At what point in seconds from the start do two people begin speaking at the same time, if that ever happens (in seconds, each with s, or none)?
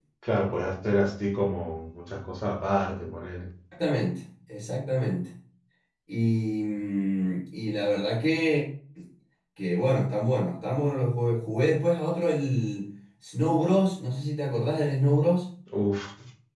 none